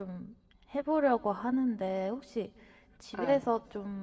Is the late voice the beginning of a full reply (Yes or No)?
No